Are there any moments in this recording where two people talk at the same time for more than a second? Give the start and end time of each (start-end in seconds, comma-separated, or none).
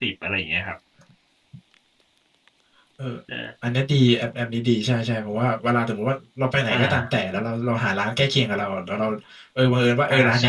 none